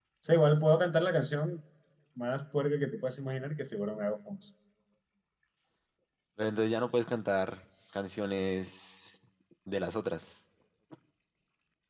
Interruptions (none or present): none